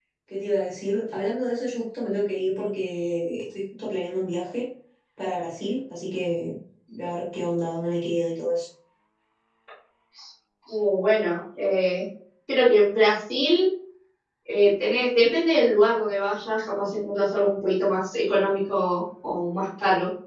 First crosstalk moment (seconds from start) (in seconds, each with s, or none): none